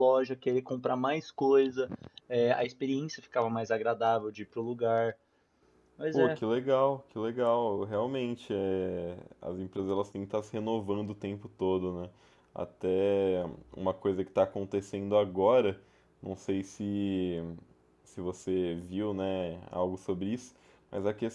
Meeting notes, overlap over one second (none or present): none